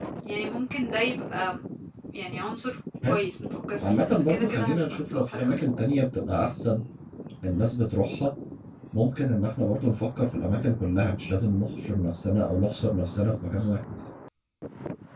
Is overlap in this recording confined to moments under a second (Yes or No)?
No